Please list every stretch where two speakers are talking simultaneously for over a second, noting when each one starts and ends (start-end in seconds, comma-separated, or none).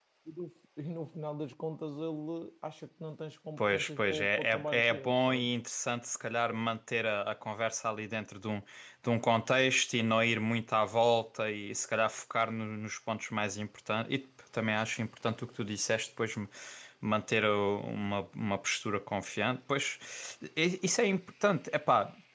3.6-5.5